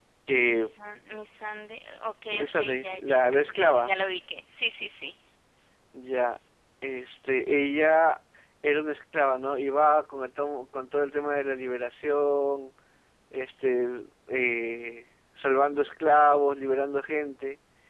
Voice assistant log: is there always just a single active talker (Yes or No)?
No